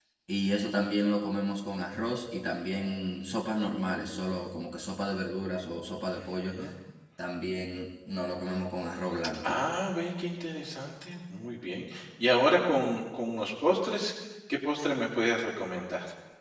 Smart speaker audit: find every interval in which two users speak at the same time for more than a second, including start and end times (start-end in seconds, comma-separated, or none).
none